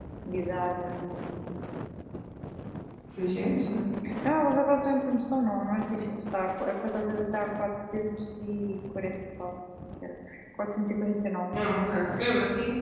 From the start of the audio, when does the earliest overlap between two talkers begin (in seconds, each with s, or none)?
none